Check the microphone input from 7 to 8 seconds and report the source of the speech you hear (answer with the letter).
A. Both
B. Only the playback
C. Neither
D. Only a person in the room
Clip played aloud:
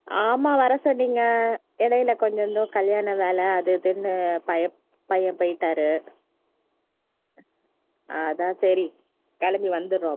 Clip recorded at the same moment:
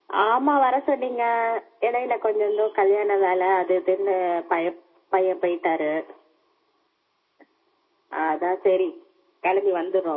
C